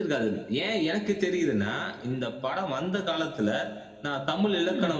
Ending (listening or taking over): listening